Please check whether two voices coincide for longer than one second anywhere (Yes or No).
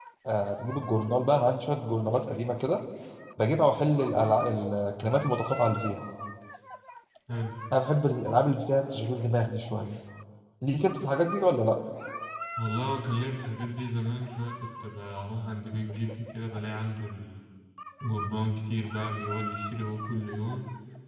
No